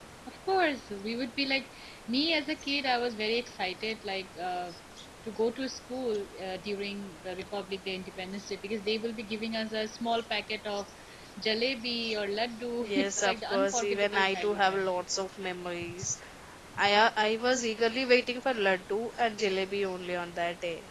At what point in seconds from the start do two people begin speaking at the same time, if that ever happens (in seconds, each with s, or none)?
12.9 s